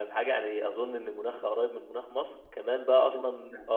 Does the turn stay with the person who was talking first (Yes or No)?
Yes